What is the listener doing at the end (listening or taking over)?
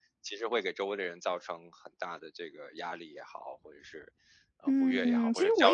taking over